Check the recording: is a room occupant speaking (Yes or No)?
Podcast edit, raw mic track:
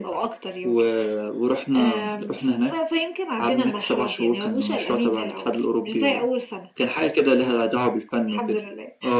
No